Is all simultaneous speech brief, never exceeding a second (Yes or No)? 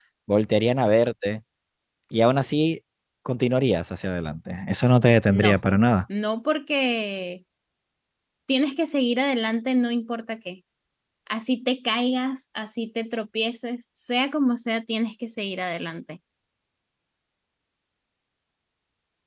Yes